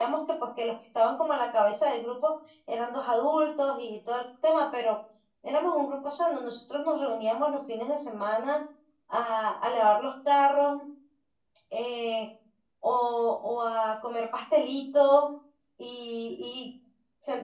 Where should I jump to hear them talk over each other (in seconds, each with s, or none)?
none